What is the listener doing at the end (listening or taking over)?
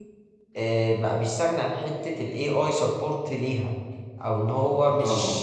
listening